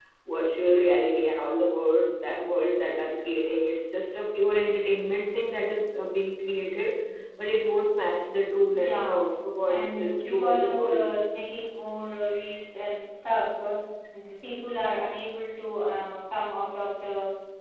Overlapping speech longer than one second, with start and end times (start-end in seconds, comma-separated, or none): 9.7-11.0